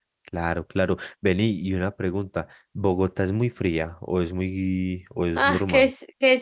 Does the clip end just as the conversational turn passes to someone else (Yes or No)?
Yes